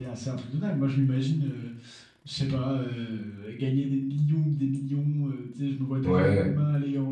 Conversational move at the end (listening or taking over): listening